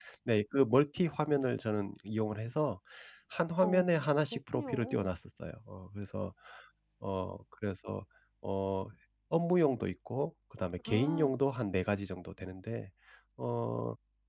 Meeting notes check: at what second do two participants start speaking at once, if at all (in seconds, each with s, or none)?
3.6 s